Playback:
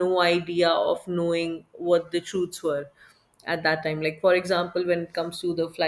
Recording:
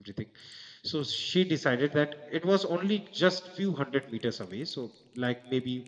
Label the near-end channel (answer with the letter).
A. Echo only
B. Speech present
B